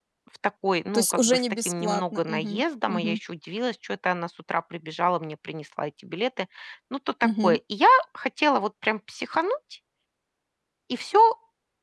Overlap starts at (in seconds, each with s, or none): 0.9 s